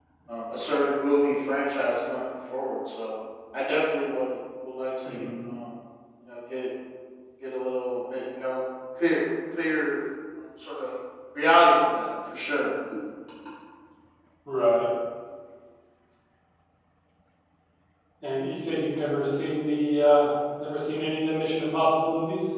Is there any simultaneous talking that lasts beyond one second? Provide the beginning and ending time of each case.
none

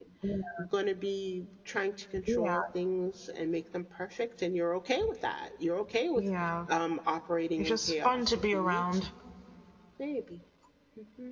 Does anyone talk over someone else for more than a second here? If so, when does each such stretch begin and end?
7.6-9.1

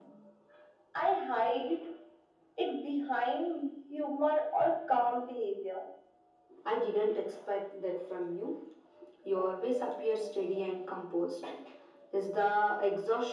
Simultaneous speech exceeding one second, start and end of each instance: none

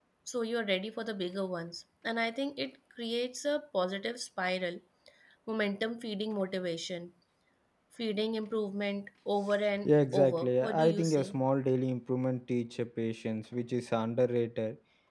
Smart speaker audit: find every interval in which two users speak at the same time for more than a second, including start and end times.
9.8-11.4

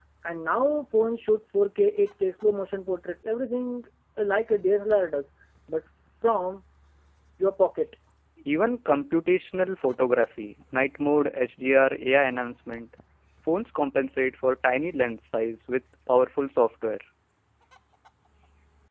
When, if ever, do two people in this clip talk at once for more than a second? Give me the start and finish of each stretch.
none

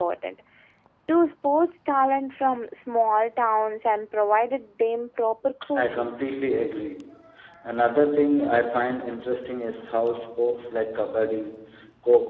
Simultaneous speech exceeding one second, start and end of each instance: none

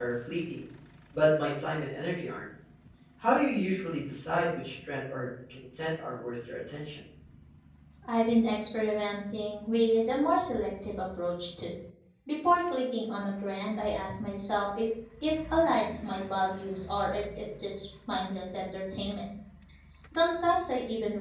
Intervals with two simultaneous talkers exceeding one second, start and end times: none

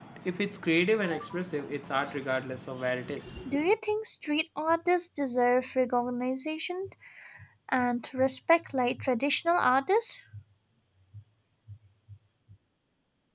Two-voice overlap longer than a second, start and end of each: none

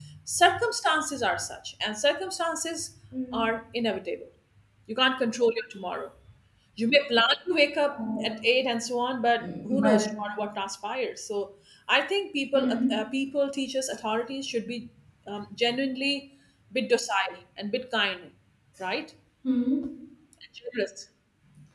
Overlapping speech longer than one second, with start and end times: none

